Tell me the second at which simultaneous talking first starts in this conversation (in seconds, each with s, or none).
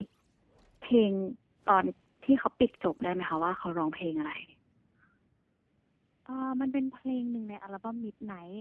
none